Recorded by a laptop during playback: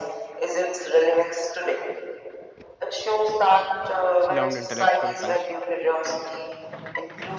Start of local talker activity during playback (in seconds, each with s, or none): 4.2 s